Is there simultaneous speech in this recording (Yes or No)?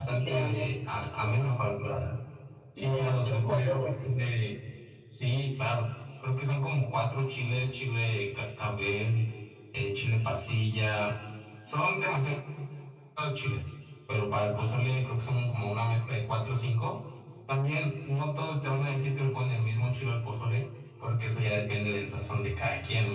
Yes